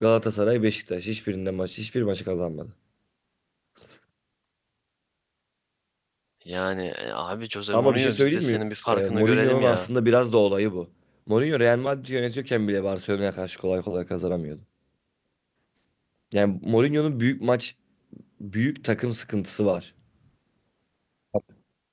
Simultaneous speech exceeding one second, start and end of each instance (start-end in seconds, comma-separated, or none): 7.7-9.9